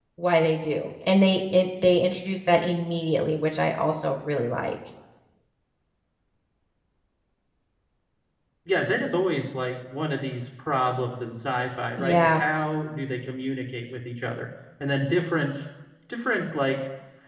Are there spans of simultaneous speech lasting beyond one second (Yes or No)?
No